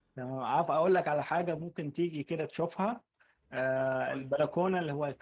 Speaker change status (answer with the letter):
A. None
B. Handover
A